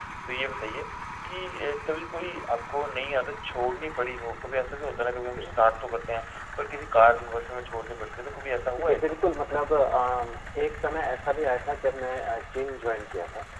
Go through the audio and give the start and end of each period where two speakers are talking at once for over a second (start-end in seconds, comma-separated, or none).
none